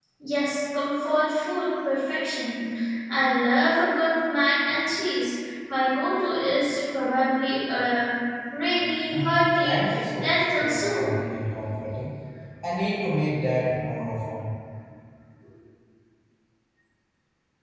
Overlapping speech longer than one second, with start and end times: 9.1-11.1

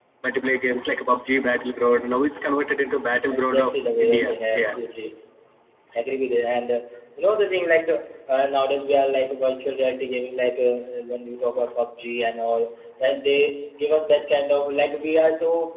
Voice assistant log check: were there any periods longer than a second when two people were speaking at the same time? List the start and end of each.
3.3-4.7

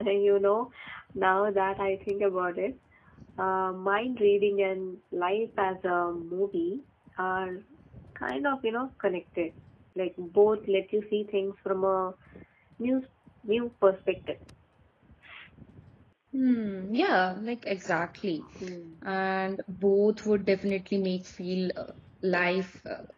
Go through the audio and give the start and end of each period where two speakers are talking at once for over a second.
none

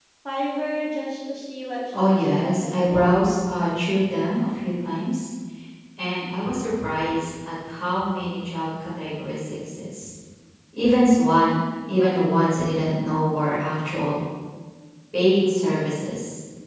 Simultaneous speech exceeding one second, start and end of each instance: 1.9-3.1

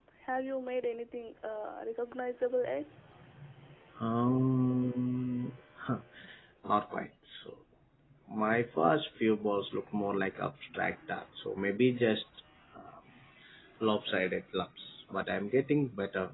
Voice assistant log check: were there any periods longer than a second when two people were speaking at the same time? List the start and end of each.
none

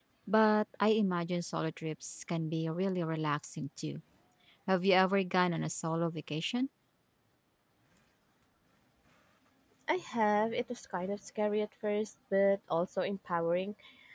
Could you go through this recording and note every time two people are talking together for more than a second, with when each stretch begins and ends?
none

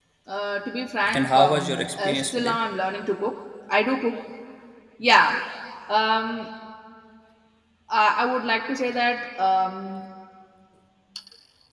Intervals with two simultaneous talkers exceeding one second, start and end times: 1.1-2.6

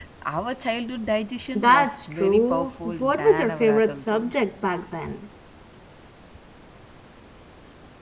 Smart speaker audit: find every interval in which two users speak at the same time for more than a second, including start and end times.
1.6-4.3

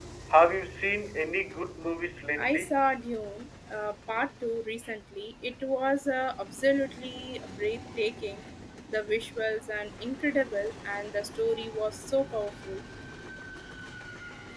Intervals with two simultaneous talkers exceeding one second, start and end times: none

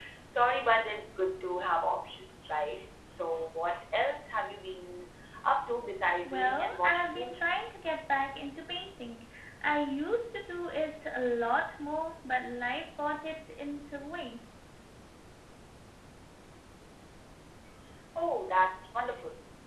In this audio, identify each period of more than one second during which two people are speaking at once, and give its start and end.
6.2-7.7

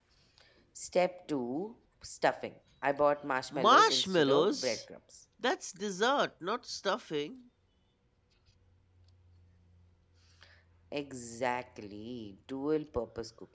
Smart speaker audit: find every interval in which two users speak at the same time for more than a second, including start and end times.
3.5-4.8

